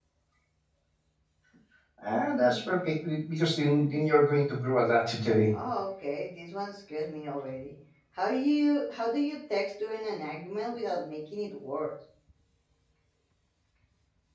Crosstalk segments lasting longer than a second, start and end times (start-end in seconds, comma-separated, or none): none